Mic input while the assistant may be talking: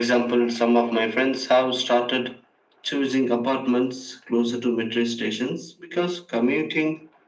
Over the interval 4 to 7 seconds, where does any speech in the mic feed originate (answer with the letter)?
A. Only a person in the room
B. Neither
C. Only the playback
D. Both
C